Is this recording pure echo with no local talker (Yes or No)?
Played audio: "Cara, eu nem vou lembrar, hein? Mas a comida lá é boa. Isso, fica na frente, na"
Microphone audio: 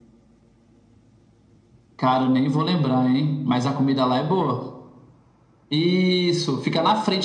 Yes